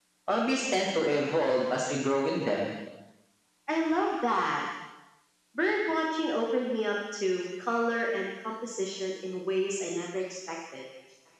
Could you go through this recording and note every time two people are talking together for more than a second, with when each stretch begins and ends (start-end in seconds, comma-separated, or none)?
none